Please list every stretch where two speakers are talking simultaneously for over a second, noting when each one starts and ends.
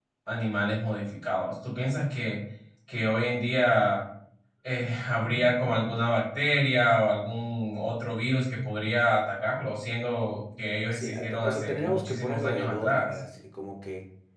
10.9-13.2

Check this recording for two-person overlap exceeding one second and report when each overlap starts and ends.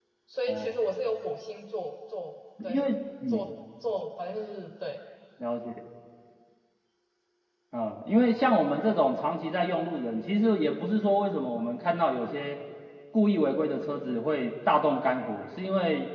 none

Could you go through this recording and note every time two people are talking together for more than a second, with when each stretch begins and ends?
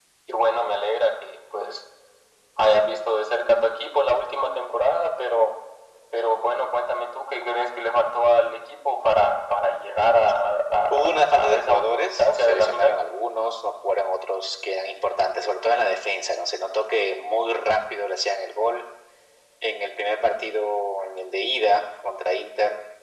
10.9-12.9

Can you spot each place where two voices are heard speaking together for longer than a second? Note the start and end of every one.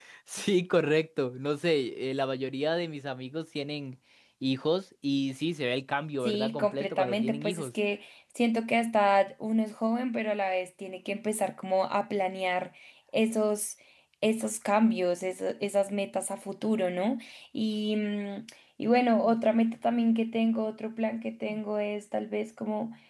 6.2-7.7

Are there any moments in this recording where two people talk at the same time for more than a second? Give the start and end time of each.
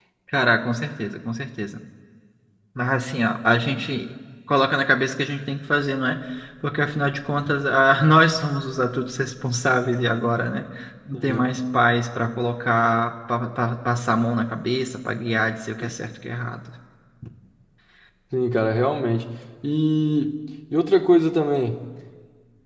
none

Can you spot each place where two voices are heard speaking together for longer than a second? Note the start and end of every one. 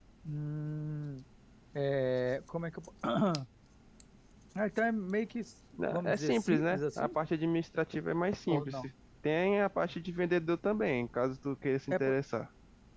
5.9-7.1

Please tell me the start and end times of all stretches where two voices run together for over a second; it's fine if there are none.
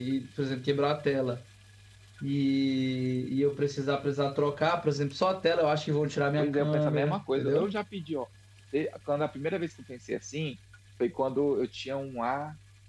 6.4-7.7

